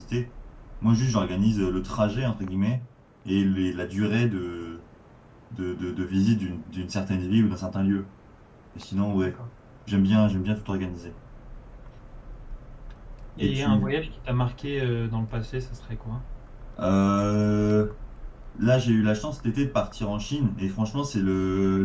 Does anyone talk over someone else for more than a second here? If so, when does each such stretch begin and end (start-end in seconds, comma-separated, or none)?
none